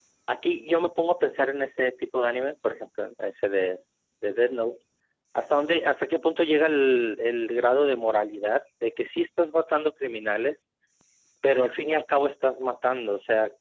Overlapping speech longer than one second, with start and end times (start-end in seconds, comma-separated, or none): none